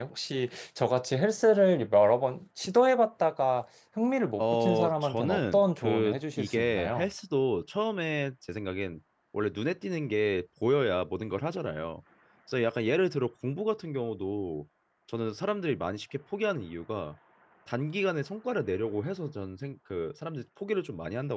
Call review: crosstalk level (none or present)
present